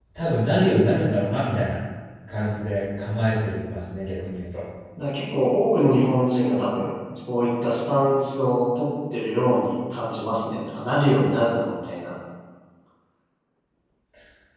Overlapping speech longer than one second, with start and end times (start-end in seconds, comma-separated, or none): none